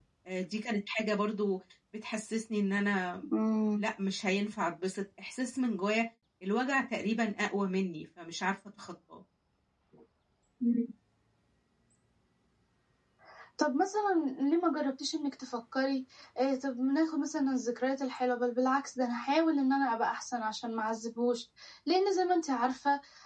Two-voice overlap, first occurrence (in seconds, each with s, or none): none